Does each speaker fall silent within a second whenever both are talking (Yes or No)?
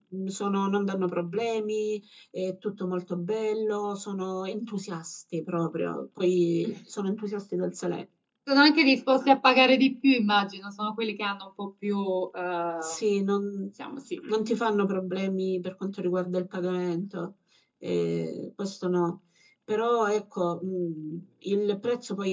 Yes